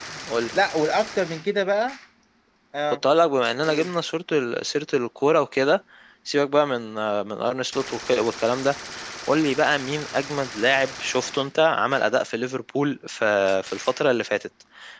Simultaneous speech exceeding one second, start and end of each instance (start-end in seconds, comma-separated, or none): none